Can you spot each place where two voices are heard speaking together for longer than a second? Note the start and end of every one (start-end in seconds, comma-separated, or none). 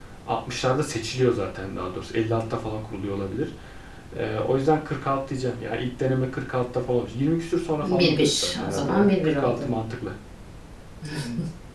7.8-9.7